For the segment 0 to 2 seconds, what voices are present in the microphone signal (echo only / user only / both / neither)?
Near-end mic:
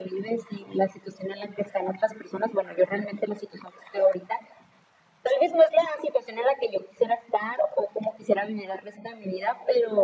echo only